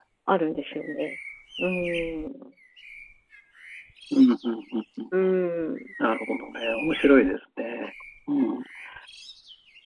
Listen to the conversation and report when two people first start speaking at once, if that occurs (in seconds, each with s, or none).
none